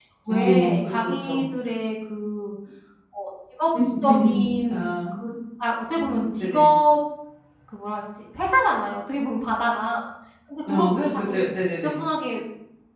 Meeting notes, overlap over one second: present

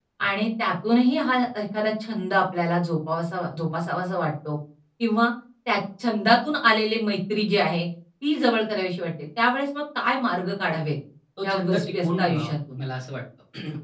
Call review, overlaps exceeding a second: present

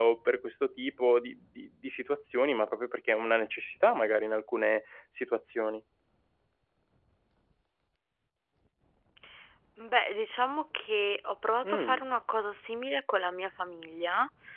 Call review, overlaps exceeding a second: none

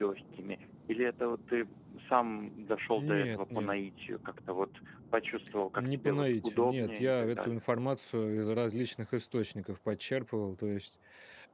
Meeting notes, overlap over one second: present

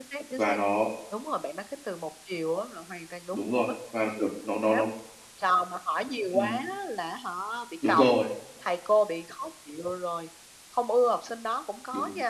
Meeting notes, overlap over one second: none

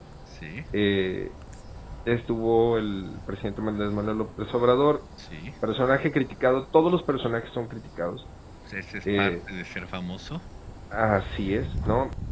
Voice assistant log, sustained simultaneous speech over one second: none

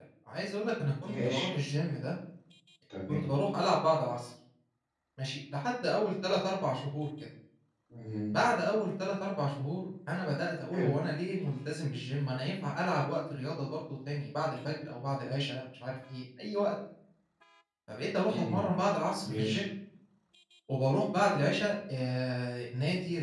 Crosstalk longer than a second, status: none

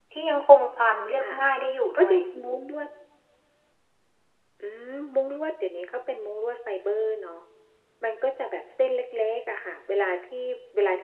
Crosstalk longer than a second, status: none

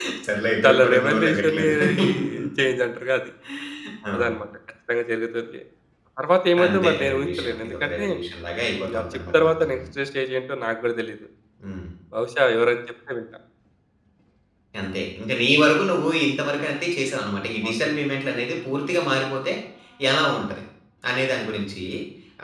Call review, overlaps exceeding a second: present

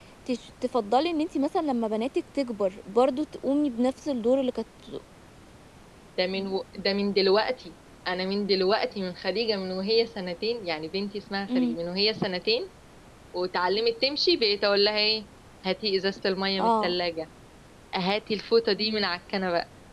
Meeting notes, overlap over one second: none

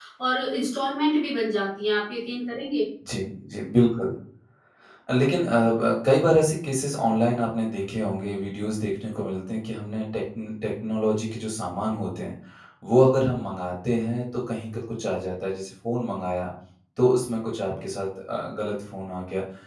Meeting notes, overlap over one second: none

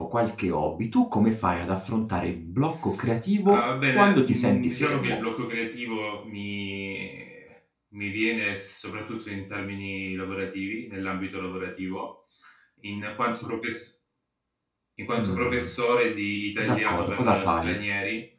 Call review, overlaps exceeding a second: present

